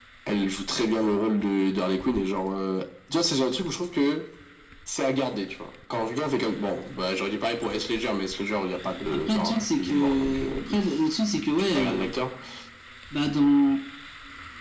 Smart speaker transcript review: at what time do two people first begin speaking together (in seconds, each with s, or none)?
9.1 s